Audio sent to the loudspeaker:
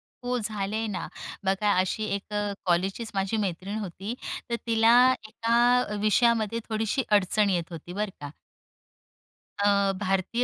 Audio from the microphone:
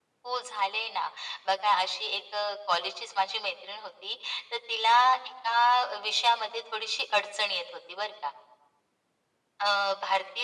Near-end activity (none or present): none